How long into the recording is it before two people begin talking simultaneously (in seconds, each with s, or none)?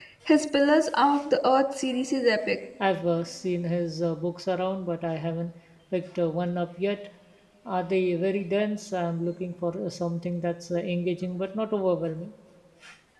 none